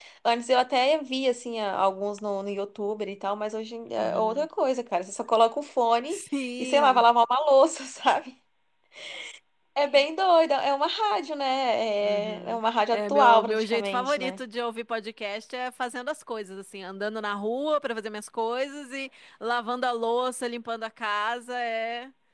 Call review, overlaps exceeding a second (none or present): present